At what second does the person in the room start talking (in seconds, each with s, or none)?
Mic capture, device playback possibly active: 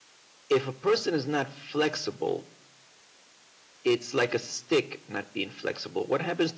none